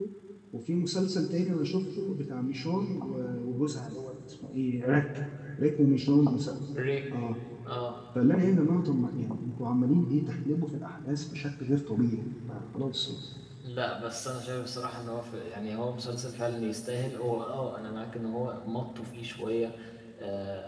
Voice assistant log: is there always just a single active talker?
Yes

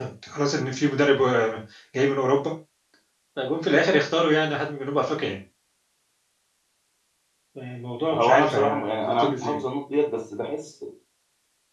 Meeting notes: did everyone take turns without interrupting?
No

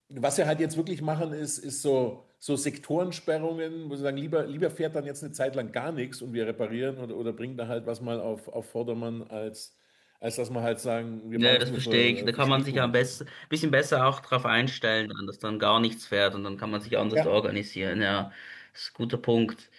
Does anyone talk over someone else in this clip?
Yes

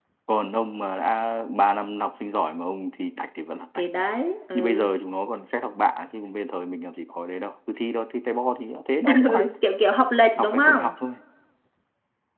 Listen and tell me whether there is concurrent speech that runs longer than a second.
No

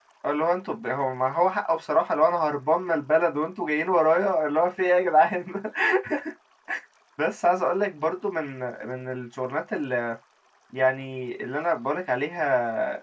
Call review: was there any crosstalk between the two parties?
No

